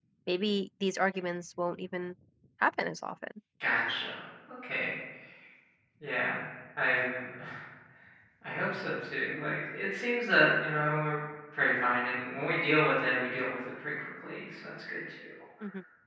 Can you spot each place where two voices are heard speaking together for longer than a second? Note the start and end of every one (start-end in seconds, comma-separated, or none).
none